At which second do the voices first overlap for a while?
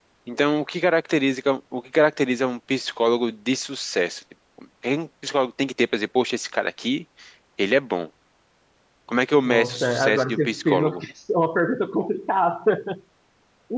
9 s

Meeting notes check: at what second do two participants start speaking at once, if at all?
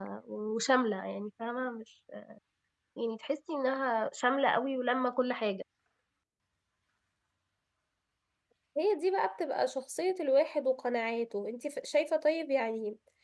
none

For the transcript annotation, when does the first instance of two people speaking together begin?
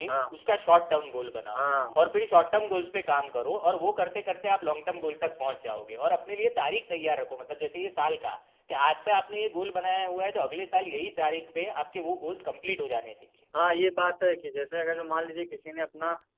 none

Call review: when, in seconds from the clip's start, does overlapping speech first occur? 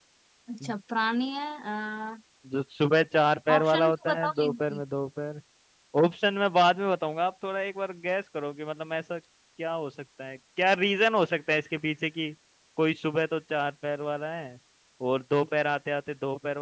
3 s

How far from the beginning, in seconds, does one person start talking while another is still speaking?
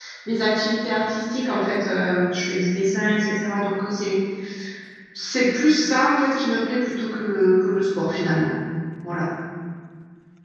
none

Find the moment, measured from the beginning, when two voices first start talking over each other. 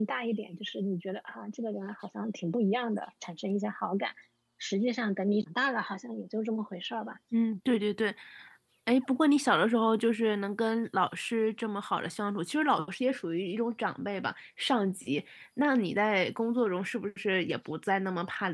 none

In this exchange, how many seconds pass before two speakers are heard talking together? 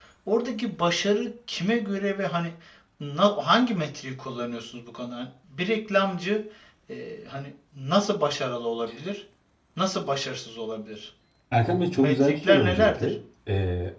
12 s

